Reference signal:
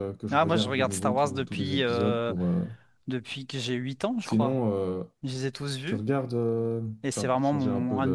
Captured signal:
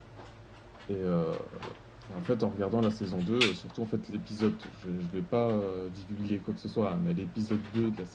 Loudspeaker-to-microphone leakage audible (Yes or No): No